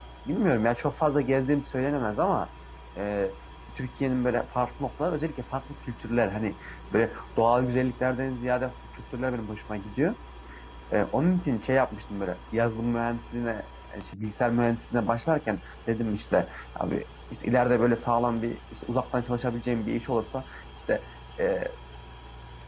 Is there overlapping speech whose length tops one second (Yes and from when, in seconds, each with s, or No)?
No